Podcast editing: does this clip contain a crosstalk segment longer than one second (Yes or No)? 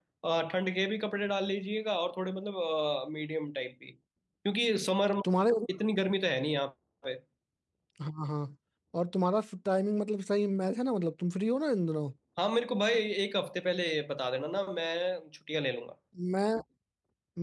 No